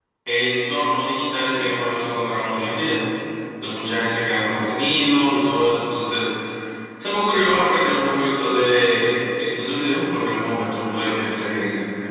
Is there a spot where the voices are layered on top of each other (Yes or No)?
No